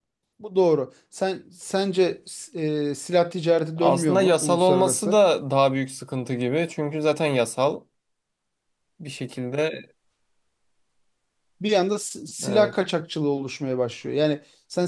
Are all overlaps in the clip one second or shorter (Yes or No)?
No